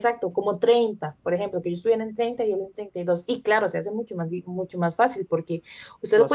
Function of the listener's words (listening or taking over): listening